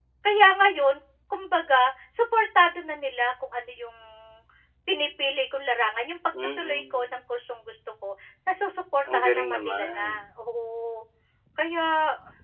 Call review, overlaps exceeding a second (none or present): present